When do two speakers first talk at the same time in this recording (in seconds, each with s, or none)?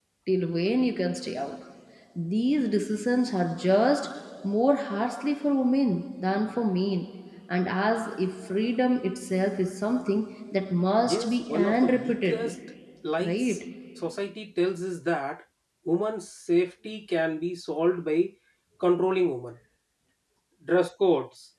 11.1 s